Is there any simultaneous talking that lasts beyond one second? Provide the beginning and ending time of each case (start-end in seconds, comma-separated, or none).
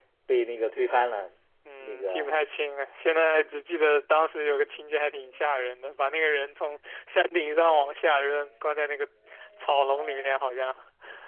none